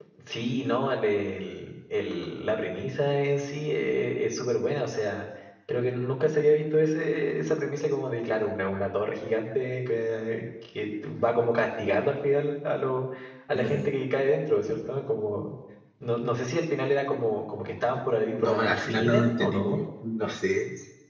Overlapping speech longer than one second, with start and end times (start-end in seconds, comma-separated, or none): 18.4-19.8